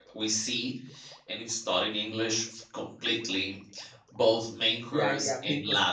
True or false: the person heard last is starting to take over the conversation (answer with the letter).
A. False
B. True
B